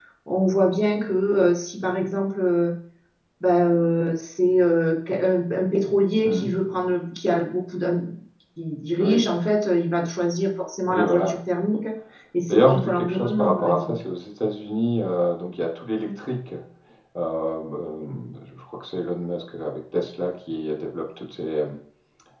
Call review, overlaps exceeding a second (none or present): present